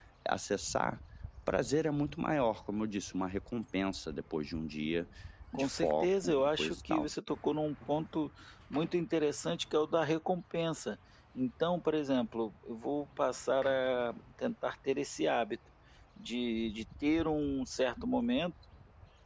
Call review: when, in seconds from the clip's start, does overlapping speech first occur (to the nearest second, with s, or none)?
6 s